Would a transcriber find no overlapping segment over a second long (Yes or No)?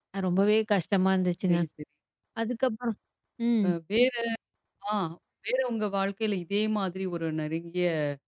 Yes